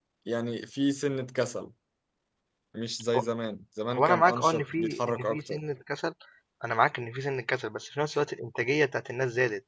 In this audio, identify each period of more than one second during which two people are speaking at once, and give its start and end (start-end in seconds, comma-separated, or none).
3.9-5.6